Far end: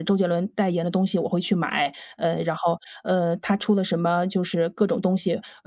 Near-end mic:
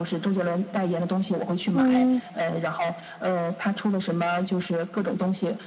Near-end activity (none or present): present